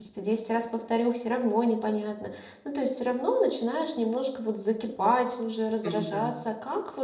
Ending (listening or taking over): listening